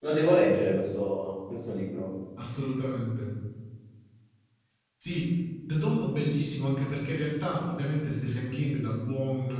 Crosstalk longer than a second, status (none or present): none